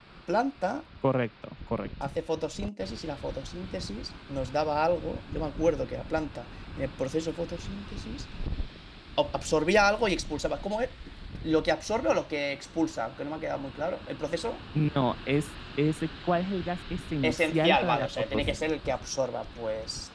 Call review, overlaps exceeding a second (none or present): present